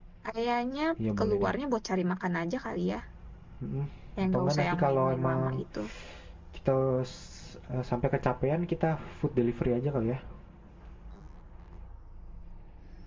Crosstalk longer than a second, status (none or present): present